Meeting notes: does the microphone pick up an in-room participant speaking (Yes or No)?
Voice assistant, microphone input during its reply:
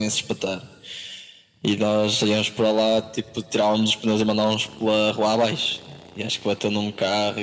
No